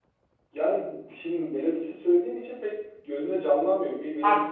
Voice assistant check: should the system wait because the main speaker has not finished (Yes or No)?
No